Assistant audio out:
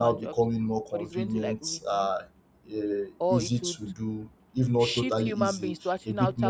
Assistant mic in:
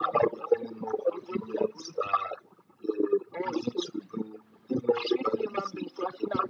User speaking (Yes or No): No